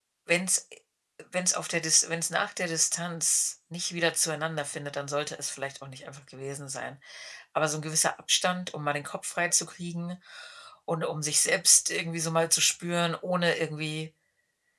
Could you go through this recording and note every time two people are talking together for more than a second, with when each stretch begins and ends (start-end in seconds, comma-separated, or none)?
none